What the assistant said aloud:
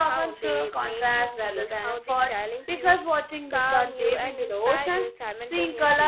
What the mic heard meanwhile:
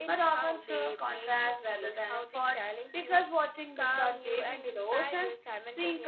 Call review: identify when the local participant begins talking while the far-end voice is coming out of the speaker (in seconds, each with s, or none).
none